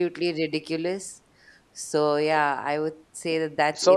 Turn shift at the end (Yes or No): Yes